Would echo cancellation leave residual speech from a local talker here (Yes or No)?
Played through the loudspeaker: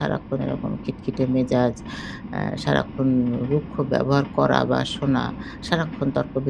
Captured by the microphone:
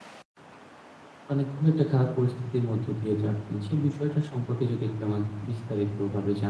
Yes